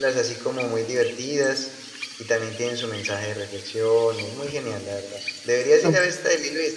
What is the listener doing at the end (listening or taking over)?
listening